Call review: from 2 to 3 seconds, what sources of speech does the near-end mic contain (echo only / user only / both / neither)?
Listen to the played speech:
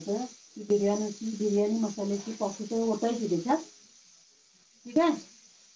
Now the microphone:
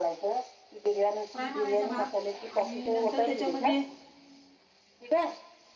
both